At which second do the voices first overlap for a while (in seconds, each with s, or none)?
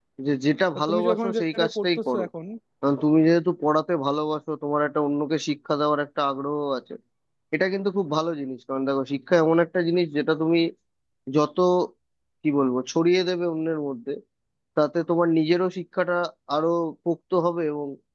0.8 s